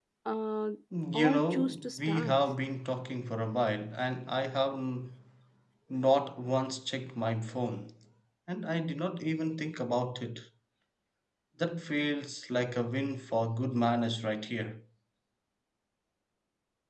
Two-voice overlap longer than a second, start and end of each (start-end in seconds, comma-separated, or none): 1.1-2.3